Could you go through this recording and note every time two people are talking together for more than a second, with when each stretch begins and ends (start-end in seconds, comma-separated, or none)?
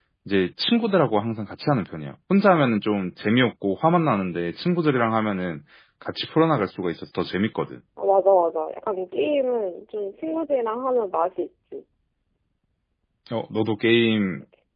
none